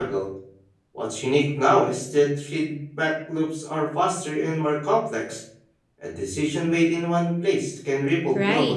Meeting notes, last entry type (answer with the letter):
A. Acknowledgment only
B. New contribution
B